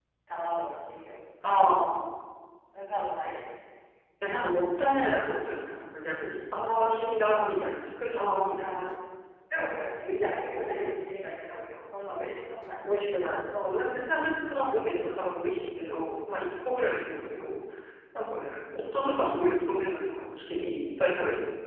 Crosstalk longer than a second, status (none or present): none